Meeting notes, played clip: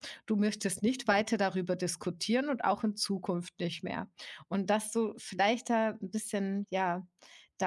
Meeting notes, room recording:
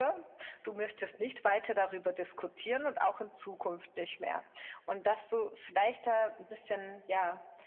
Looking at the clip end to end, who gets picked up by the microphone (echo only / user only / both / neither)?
echo only